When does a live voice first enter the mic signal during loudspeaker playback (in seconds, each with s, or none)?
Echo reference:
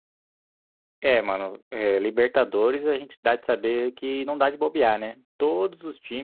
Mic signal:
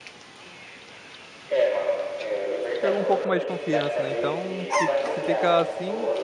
2.8 s